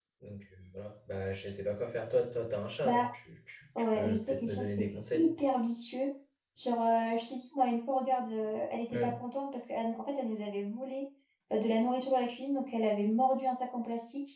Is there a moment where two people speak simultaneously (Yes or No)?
Yes